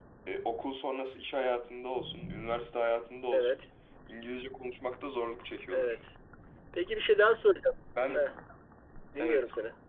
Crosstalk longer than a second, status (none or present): none